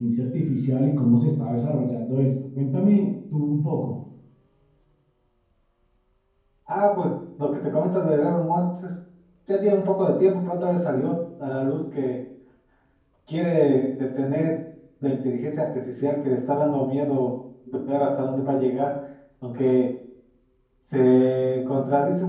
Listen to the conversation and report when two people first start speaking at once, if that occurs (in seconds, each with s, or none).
none